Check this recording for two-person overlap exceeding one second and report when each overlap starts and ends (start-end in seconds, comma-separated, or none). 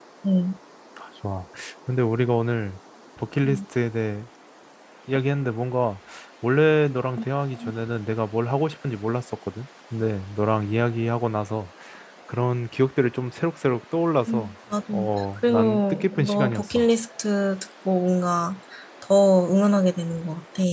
15.4-16.9